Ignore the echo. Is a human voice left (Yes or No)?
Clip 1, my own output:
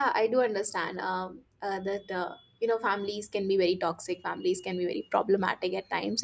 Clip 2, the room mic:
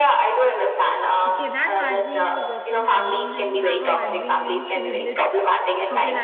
Yes